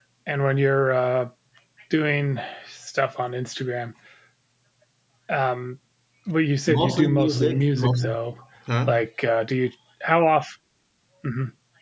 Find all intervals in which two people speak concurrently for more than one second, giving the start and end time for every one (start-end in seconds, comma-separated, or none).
6.7-8.1